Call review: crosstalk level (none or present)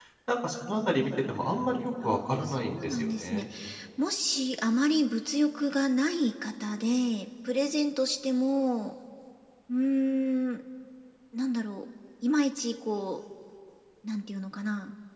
present